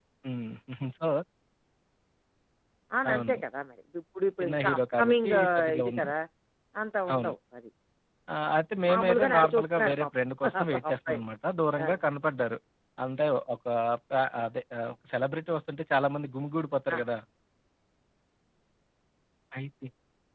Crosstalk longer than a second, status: present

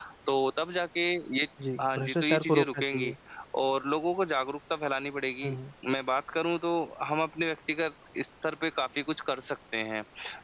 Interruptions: present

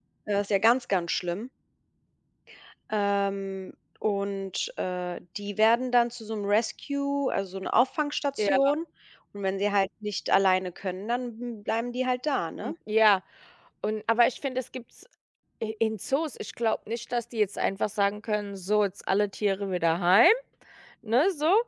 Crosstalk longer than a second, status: none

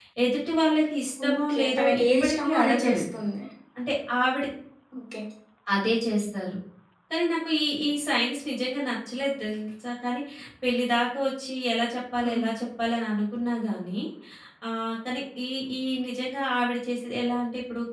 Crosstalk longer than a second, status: present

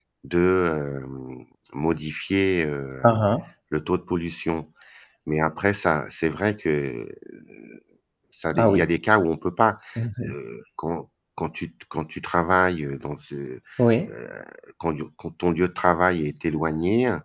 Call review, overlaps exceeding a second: none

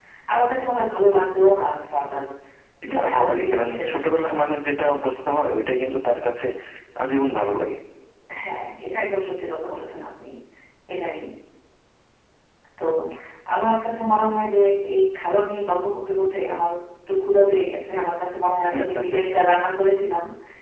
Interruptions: present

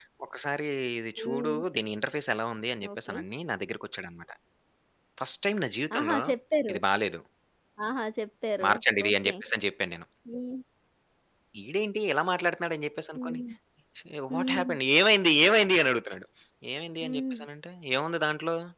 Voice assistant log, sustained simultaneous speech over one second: none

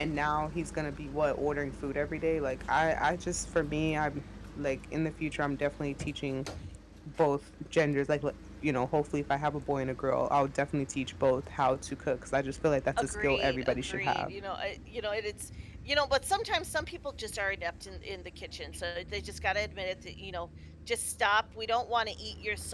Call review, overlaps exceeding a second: present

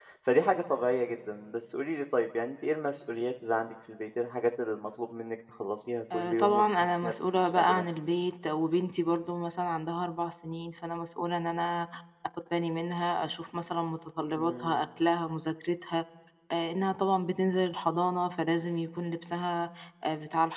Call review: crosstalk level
present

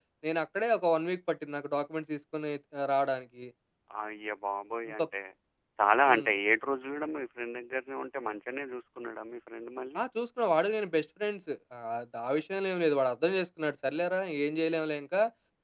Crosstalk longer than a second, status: none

